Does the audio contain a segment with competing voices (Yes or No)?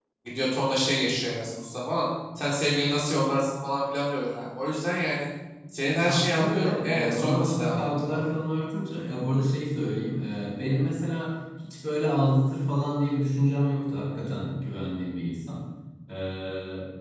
Yes